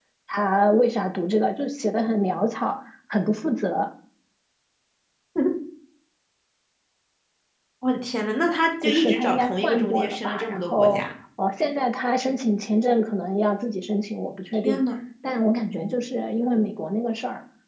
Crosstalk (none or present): present